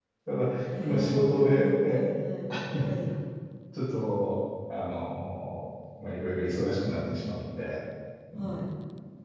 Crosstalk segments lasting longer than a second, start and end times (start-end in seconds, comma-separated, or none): 0.8-2.0